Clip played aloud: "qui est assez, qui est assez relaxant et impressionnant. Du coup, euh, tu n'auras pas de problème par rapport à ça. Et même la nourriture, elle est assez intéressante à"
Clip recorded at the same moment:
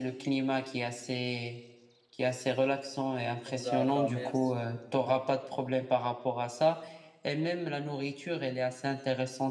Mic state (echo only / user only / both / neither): both